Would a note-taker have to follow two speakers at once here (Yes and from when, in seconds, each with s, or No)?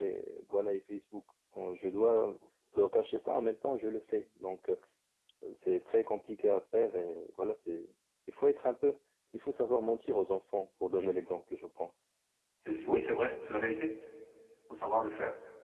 No